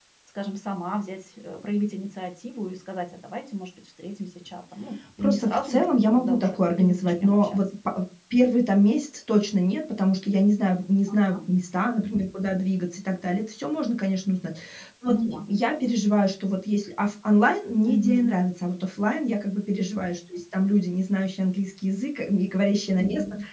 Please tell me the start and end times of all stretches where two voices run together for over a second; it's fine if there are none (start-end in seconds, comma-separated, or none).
5.2-7.6